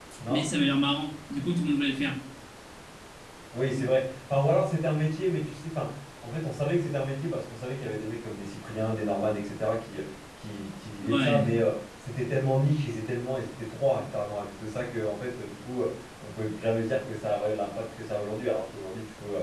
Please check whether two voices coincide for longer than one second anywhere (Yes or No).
No